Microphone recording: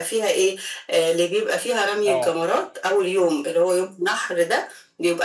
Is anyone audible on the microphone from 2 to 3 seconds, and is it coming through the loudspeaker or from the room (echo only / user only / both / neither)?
both